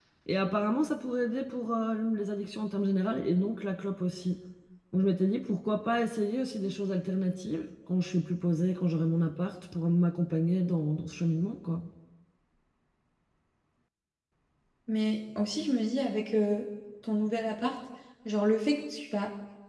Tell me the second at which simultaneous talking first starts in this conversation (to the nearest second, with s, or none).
none